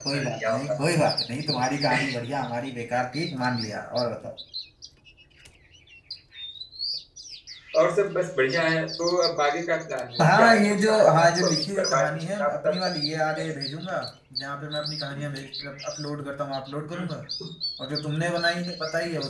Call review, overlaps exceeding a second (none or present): present